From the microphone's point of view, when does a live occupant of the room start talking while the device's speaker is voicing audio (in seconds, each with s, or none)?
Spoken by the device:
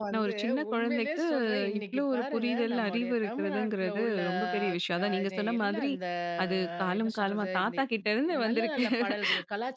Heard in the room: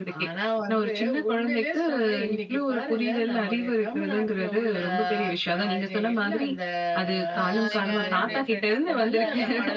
7.4 s